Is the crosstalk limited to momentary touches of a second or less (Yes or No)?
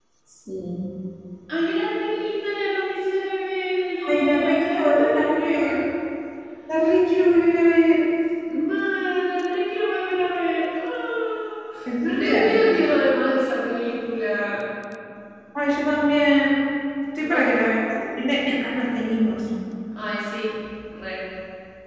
No